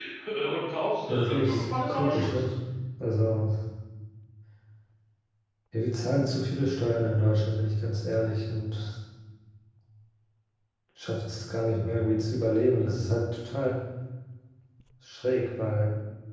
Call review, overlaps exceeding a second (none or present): present